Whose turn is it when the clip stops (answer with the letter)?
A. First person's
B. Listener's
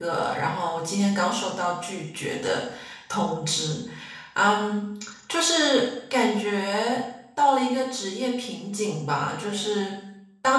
A